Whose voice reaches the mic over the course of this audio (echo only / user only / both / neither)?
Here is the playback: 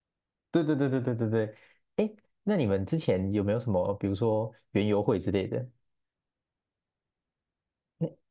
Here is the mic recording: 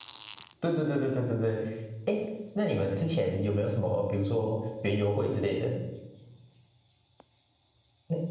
echo only